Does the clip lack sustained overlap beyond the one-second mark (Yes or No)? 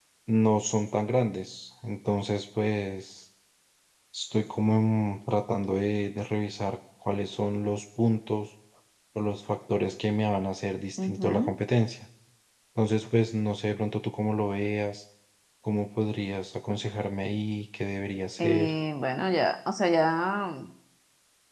Yes